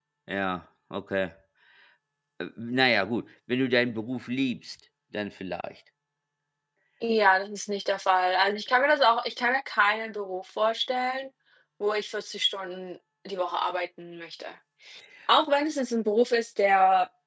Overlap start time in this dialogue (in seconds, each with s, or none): none